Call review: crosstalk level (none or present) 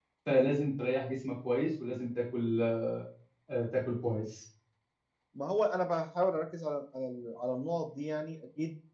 none